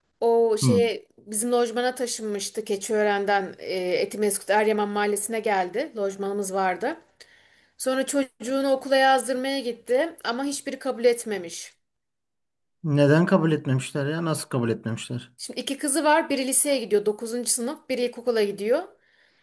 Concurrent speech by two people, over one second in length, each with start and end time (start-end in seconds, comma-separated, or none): none